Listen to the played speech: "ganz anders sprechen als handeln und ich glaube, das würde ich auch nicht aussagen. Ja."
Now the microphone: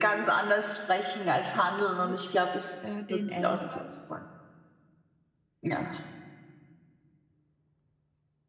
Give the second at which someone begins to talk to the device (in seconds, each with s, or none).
2.0 s